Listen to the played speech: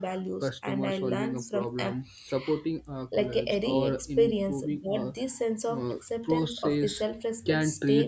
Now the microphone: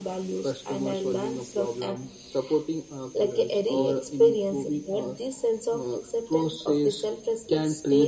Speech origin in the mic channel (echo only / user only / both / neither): echo only